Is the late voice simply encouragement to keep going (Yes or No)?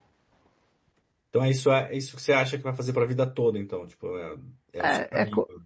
No